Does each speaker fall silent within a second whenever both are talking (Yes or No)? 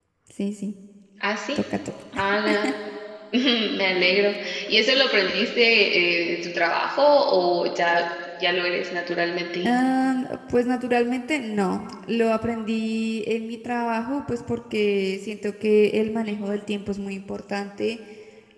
Yes